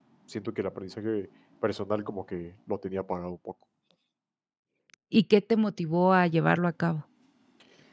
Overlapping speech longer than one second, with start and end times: none

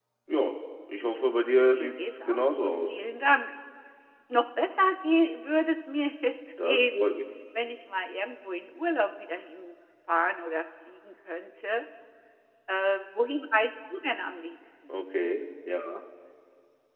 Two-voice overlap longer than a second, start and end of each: 1.6-3.0

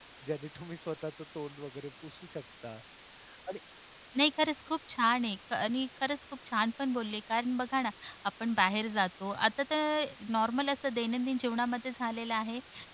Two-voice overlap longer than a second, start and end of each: none

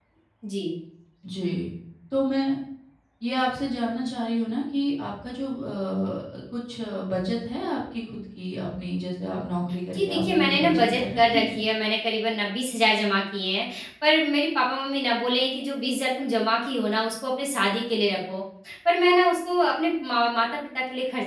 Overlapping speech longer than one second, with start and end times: 9.9-11.6

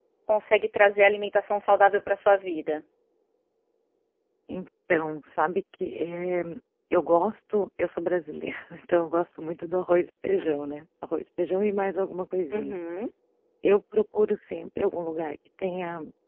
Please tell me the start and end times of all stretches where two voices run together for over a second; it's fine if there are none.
none

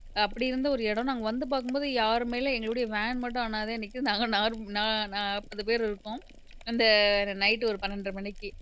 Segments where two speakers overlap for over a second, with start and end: none

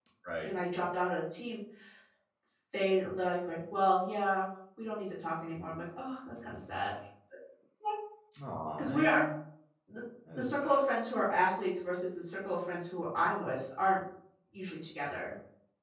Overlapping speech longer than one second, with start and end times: none

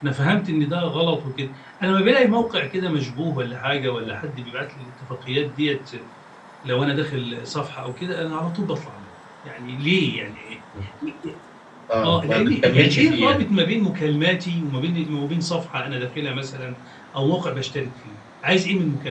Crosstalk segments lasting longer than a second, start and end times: 12.0-13.4

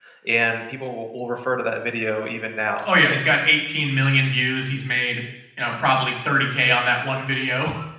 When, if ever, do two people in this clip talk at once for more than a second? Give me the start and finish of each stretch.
none

